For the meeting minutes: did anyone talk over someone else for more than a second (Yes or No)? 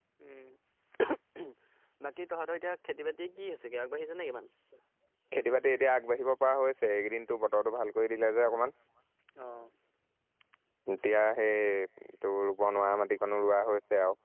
No